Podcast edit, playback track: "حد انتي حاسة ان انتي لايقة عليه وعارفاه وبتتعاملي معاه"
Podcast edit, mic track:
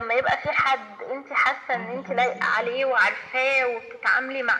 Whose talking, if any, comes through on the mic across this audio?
both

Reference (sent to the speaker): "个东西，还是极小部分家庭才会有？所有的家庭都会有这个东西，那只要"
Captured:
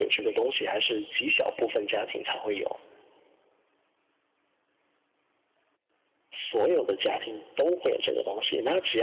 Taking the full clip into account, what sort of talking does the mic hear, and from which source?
echo only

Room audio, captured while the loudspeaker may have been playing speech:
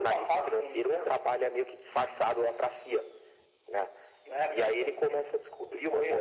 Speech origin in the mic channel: echo only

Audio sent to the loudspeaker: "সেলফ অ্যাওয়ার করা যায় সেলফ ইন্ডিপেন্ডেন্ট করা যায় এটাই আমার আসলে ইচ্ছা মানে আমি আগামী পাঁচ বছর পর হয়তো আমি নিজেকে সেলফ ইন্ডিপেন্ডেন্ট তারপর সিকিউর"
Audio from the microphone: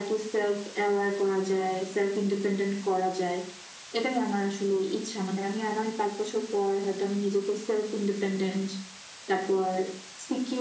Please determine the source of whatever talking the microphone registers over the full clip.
echo only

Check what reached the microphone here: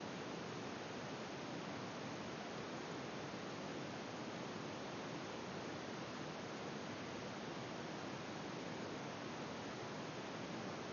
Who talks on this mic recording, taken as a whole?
neither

